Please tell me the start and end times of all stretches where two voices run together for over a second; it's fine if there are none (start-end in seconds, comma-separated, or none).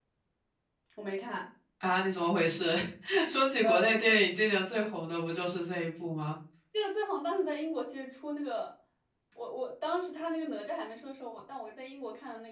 none